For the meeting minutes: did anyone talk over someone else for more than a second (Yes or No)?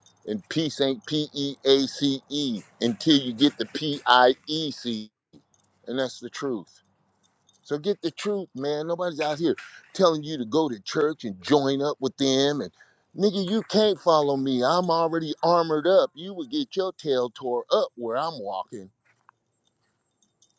No